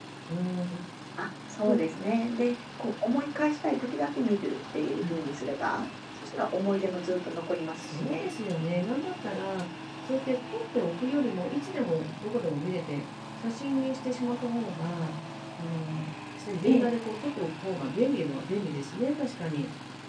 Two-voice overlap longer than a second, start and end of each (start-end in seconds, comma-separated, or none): none